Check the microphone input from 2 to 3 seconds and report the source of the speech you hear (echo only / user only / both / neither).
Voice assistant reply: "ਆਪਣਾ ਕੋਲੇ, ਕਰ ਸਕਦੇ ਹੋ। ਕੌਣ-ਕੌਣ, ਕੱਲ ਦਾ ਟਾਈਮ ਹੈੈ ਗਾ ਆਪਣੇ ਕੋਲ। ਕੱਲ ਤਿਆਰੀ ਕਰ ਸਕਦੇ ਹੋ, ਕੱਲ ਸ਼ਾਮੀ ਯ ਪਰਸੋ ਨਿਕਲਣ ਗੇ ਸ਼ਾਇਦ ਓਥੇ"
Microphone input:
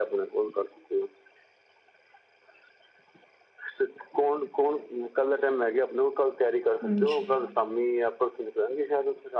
neither